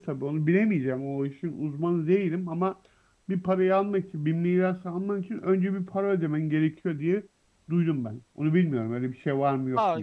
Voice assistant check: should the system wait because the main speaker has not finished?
No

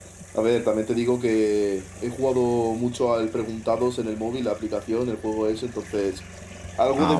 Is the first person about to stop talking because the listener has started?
Yes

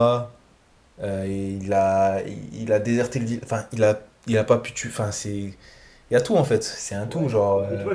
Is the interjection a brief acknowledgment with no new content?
No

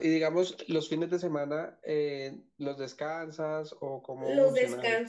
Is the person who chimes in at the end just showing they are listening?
No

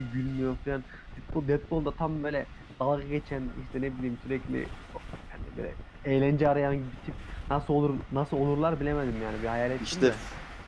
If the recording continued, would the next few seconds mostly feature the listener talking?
Yes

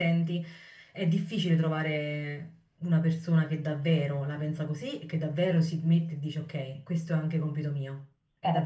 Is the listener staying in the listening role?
No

